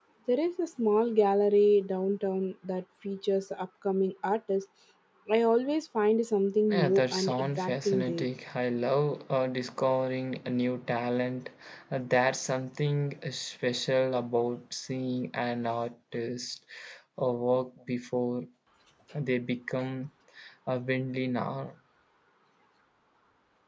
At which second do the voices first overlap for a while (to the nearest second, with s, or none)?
7 s